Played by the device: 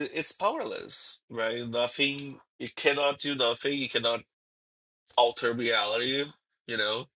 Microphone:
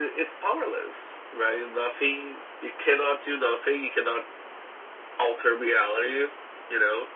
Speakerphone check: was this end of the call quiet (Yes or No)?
Yes